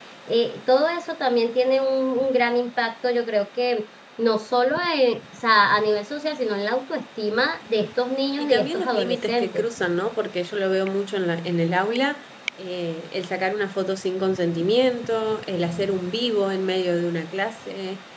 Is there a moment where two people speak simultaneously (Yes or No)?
Yes